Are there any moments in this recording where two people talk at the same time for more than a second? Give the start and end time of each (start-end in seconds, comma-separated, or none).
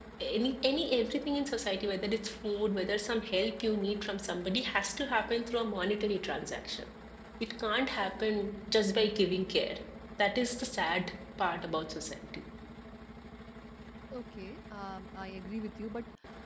none